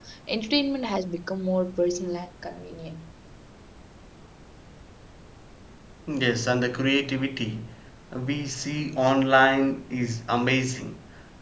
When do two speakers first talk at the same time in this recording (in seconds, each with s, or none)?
none